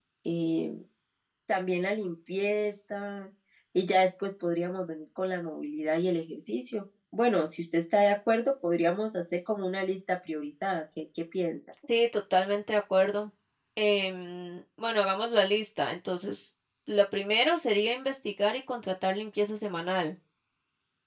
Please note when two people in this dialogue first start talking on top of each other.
none

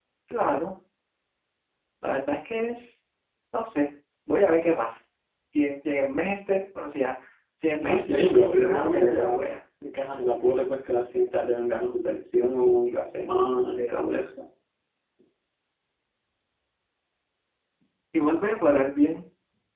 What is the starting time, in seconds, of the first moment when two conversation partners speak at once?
7.8 s

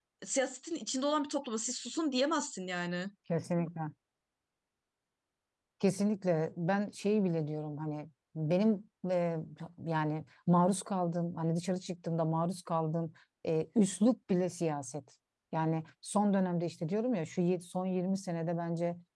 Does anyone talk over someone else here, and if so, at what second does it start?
none

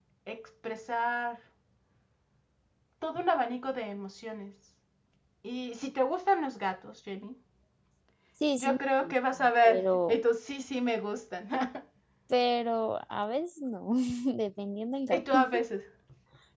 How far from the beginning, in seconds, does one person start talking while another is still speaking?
8.6 s

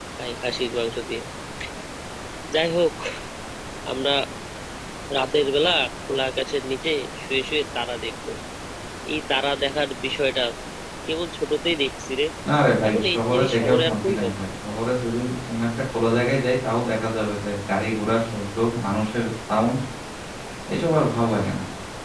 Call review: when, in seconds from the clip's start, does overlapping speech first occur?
12.9 s

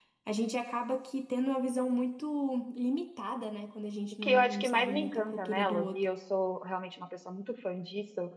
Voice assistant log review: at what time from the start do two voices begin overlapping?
4.2 s

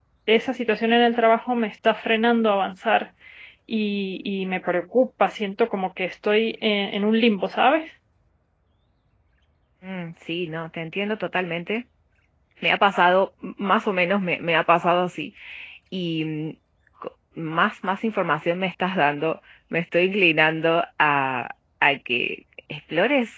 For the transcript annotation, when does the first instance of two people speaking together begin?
none

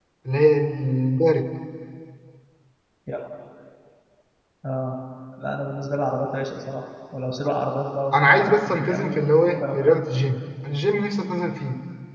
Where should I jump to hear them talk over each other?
8.1 s

